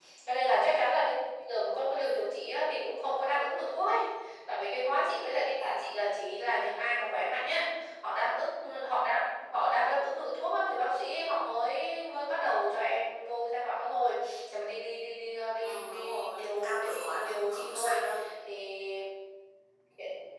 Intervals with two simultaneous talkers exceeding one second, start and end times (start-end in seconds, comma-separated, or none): 15.6-18.0